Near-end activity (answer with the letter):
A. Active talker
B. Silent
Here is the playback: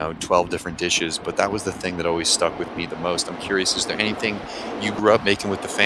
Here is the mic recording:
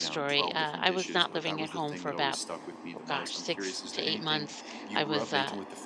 A